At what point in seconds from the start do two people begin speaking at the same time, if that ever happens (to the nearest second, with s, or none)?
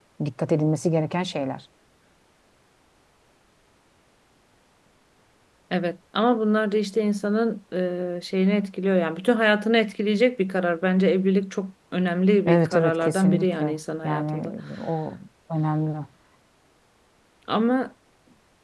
12 s